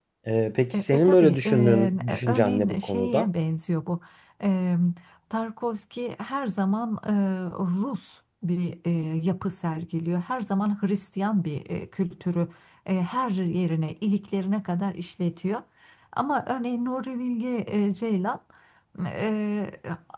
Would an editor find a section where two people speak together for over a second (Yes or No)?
Yes